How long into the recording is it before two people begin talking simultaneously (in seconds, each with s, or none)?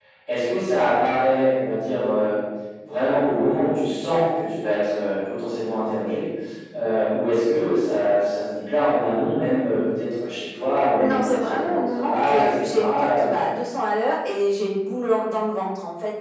11.0 s